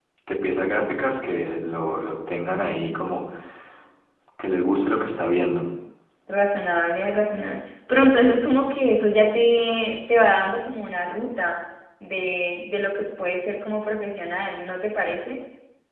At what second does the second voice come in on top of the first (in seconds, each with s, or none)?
none